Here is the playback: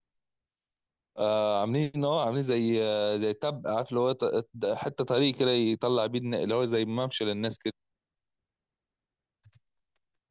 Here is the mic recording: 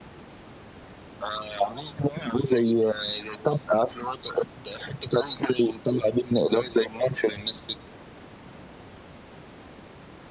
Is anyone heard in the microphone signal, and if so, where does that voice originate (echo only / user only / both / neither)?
echo only